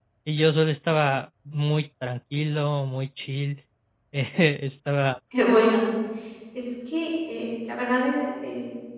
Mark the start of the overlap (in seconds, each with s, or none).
none